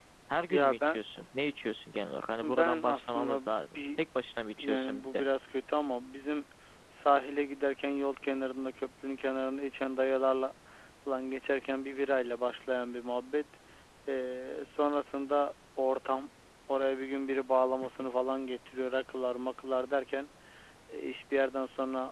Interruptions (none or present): present